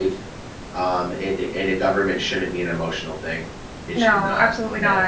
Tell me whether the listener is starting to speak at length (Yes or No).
Yes